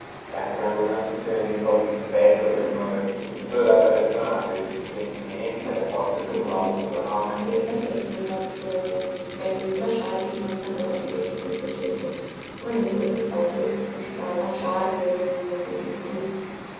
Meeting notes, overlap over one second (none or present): none